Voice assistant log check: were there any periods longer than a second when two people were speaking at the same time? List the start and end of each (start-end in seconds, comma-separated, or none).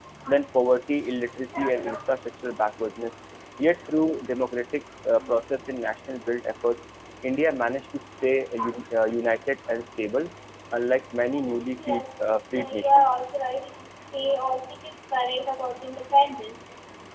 11.9-13.1